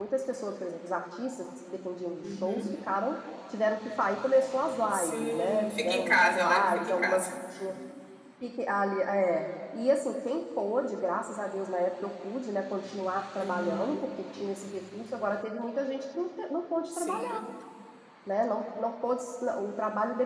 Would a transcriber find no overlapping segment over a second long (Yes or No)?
No